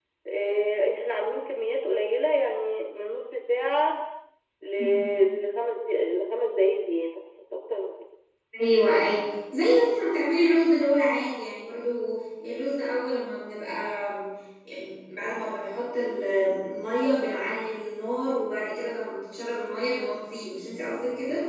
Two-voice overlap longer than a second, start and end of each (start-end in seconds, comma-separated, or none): none